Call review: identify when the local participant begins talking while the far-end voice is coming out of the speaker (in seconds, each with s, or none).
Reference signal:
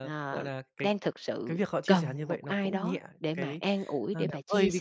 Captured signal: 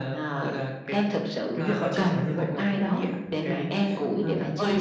1.6 s